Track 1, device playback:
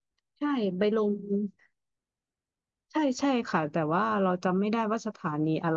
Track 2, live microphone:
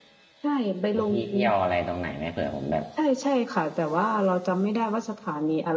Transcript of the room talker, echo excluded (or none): มีที่เที่ยวอะไรตรงไหนไหมเผื่อผมแบบ